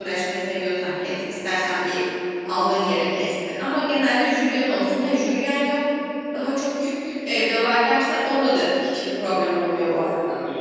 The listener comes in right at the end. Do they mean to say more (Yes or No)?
Yes